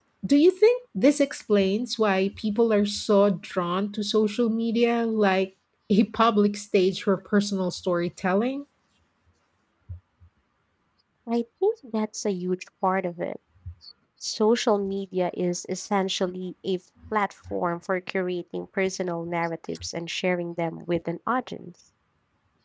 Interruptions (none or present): none